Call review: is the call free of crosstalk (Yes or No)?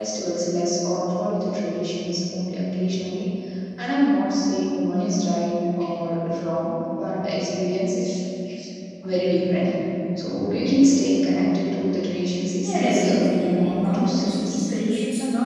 No